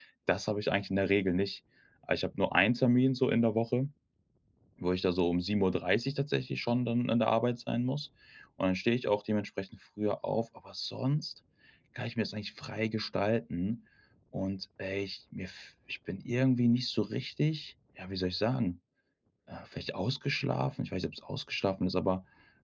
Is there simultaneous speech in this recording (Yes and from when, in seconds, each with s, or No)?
No